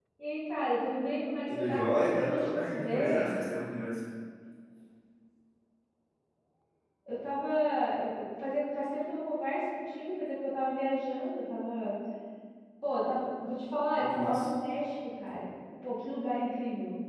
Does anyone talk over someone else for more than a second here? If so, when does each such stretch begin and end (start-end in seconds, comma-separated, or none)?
1.5-3.3